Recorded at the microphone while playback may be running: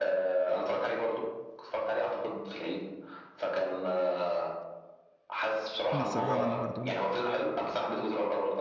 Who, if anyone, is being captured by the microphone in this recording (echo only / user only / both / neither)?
both